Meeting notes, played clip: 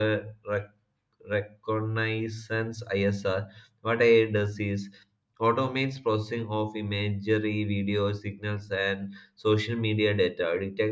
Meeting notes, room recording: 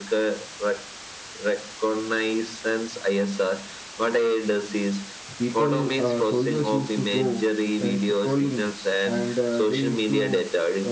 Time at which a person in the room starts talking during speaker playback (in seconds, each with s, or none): 5.4 s